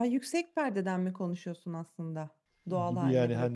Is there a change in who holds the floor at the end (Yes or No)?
Yes